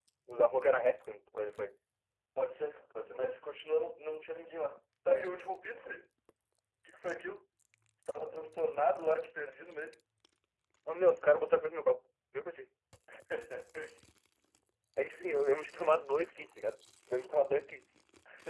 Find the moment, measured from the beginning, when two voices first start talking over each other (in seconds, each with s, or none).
none